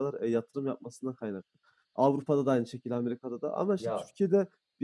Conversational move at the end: listening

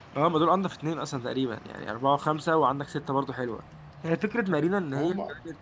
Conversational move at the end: listening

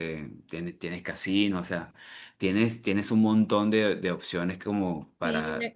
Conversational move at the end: taking over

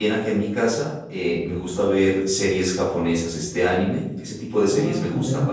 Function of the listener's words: taking over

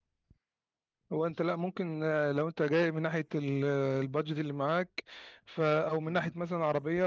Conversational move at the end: listening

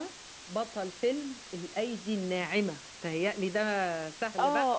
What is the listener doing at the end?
taking over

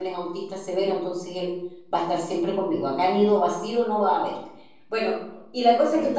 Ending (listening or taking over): listening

